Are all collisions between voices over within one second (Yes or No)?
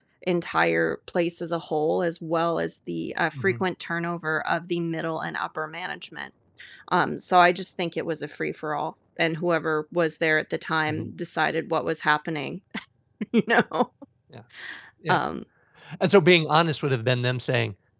Yes